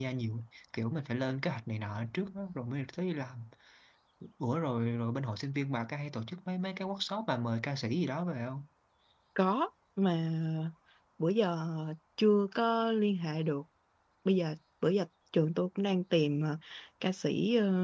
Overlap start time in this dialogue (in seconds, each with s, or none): none